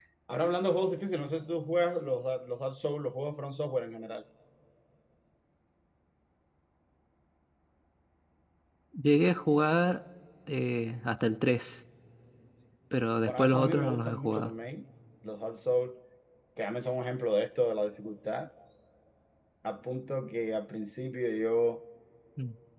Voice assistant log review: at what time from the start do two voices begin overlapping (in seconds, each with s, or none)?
13.3 s